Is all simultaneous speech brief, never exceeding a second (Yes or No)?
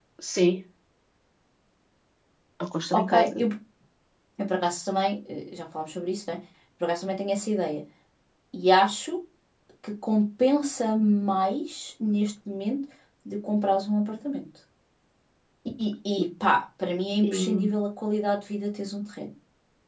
Yes